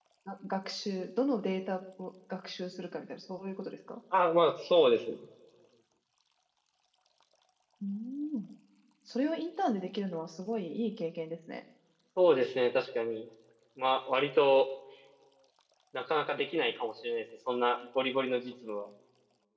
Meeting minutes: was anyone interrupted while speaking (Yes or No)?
No